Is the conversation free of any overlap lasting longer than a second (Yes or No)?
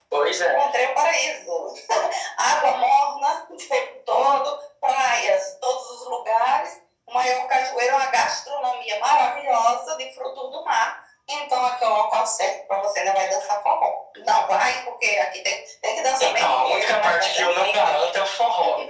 No